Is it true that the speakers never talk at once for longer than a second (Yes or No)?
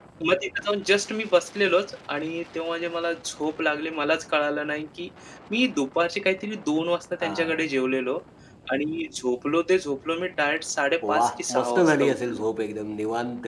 No